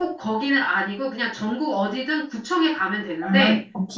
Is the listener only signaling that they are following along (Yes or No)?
Yes